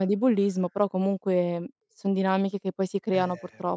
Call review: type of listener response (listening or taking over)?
taking over